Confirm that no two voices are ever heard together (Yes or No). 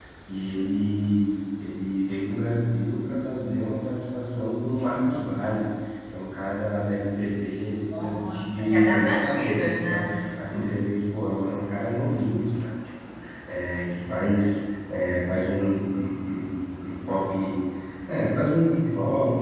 No